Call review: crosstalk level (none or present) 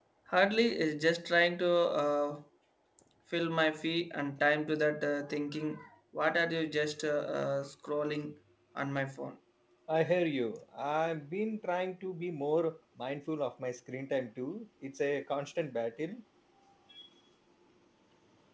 none